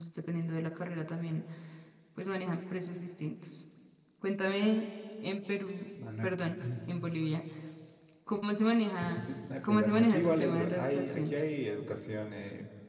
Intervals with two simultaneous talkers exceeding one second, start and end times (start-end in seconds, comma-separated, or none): 9.6-11.3